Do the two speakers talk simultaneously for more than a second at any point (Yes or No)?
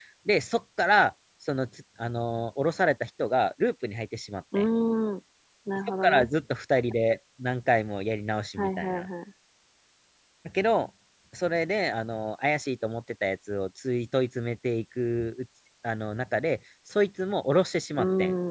No